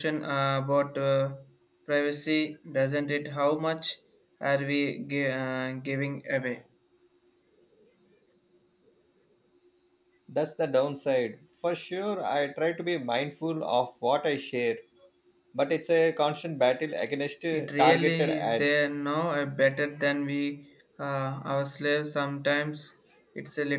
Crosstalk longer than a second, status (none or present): present